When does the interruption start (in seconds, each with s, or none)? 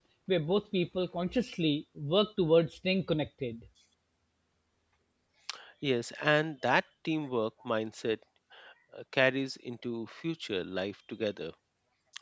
none